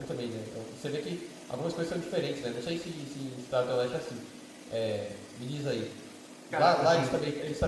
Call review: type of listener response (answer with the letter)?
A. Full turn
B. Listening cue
B